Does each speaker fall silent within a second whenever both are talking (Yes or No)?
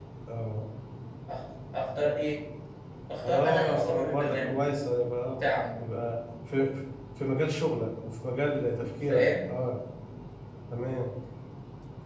No